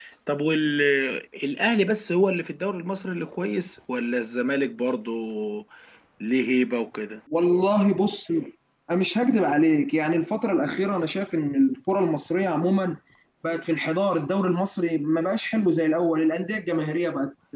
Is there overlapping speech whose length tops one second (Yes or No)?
No